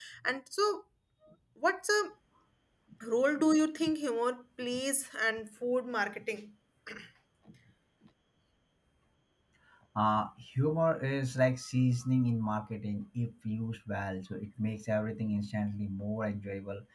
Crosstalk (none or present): none